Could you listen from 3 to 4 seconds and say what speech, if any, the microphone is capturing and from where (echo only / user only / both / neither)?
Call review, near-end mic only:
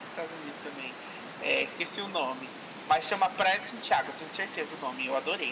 echo only